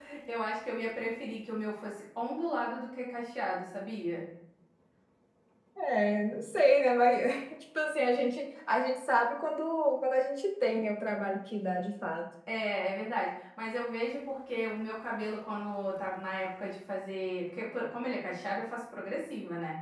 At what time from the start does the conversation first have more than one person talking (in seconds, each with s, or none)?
none